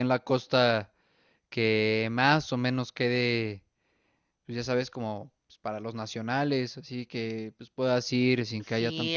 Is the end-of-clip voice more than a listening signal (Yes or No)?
Yes